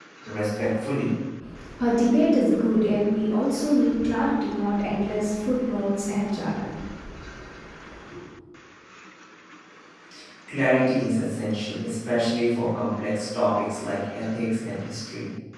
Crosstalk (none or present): none